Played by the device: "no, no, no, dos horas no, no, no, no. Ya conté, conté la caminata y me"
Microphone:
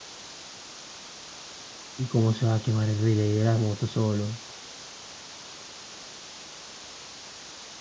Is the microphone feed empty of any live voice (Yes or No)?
No